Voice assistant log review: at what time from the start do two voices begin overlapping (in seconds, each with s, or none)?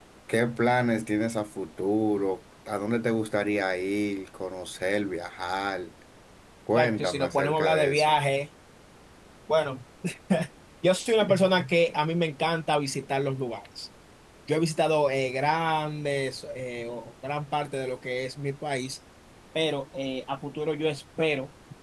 6.8 s